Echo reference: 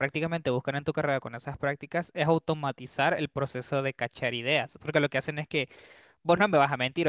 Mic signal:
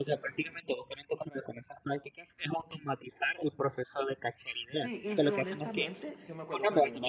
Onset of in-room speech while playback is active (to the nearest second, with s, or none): 5 s